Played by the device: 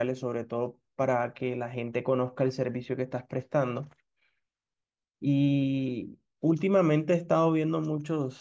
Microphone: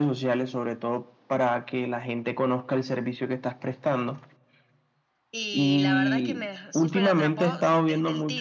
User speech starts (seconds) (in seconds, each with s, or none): 5.3 s